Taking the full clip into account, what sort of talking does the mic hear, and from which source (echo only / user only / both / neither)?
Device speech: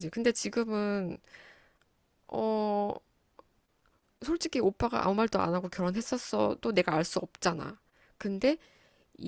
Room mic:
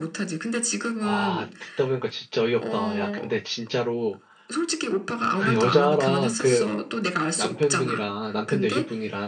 both